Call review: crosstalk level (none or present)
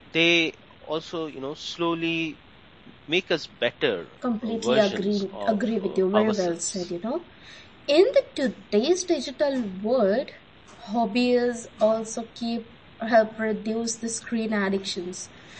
present